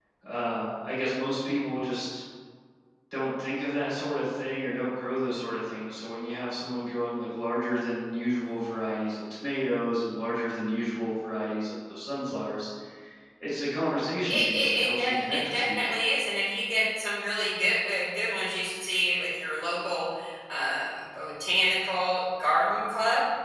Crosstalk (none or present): present